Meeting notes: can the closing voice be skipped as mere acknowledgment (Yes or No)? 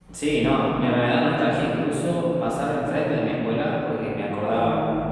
Yes